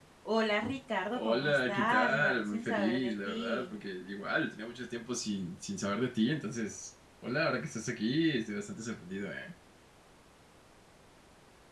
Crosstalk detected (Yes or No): Yes